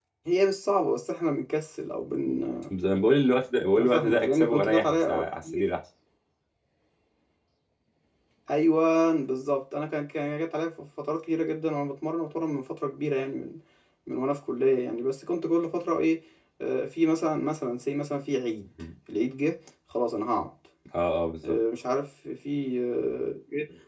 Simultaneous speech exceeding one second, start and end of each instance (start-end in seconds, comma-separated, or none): 3.8-5.6